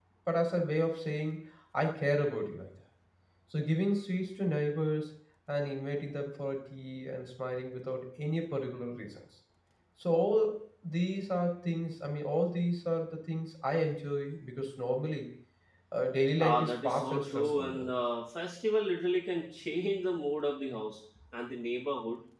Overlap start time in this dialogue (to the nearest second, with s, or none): 16 s